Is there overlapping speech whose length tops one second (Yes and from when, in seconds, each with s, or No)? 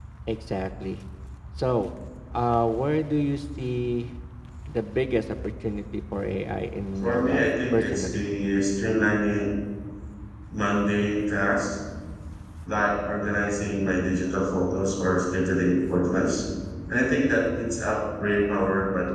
Yes, from 7.0 s